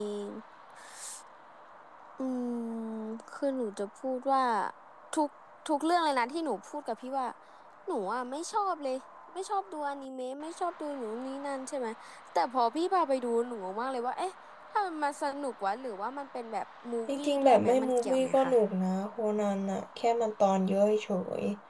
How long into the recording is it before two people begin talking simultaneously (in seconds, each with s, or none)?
17.1 s